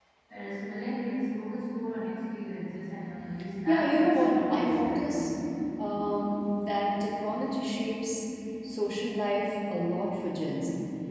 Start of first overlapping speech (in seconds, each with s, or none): 3.7 s